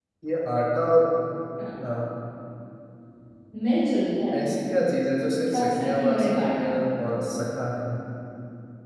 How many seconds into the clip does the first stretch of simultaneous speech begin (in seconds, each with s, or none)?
5.5 s